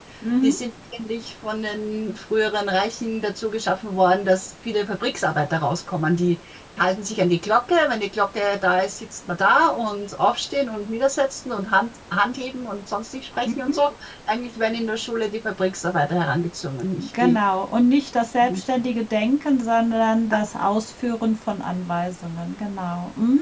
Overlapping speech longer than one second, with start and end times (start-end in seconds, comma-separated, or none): none